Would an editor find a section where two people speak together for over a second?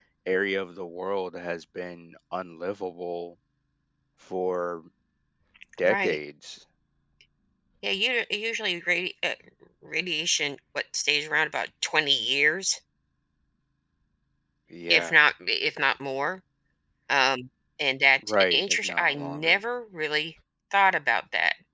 Yes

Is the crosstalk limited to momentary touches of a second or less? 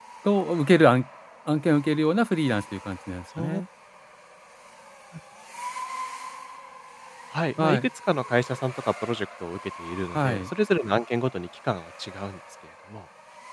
Yes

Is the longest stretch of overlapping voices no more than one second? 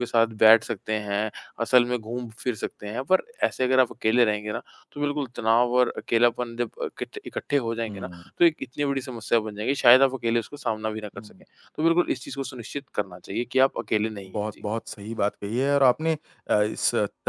Yes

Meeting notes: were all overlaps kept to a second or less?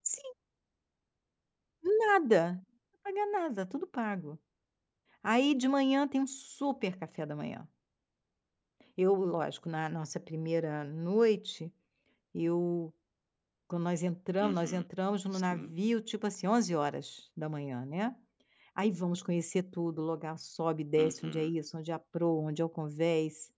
Yes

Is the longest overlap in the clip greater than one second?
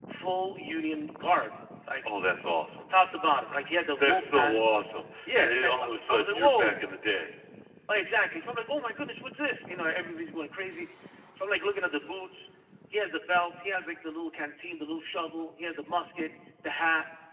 Yes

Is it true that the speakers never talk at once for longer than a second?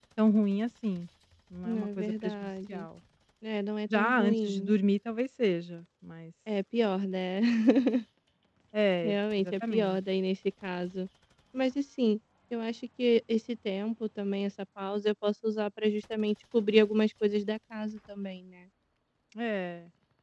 No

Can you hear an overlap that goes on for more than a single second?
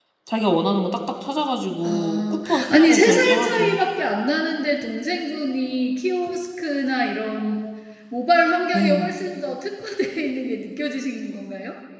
Yes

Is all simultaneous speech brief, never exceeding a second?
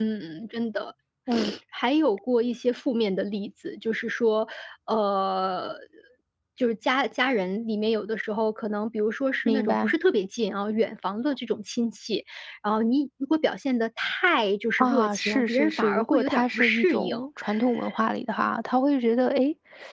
No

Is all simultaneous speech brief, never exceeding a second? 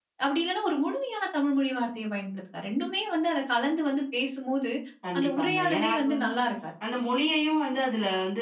No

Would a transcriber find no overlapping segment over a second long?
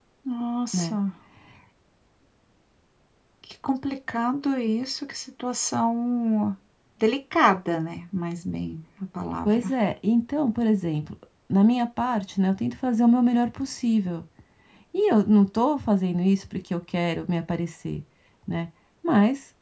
Yes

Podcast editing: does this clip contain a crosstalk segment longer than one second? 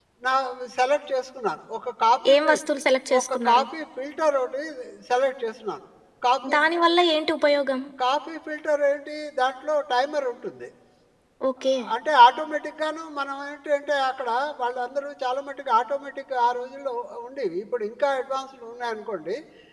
No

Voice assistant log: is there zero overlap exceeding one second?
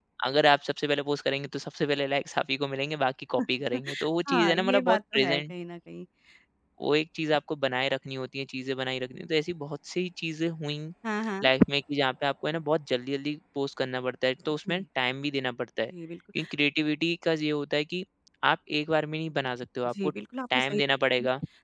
No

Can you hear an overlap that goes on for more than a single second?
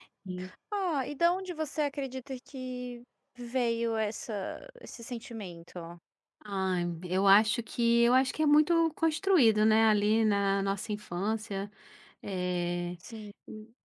No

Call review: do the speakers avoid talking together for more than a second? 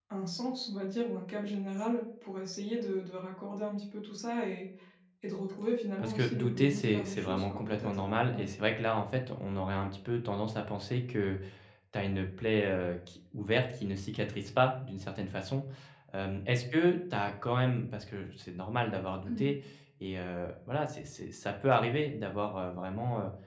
No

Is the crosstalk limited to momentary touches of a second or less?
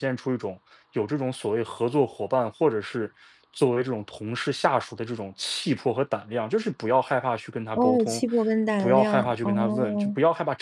No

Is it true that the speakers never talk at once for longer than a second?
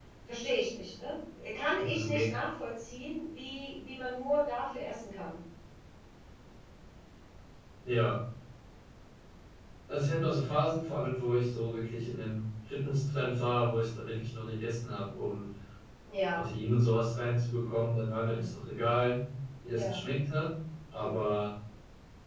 Yes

